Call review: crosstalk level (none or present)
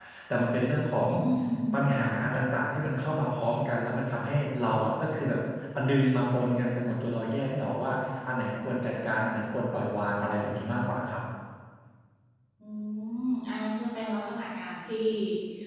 none